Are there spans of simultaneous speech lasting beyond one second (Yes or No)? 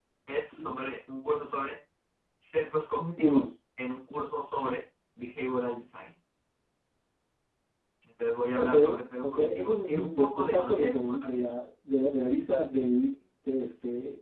Yes